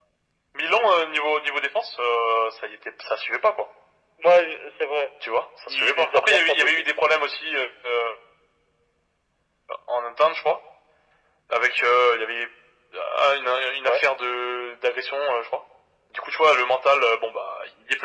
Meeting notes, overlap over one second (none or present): present